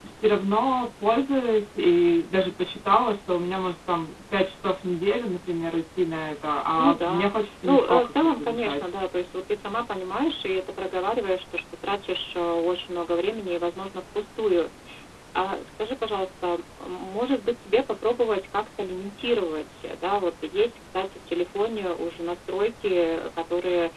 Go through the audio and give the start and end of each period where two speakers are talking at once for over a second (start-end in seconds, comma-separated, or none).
6.8-8.9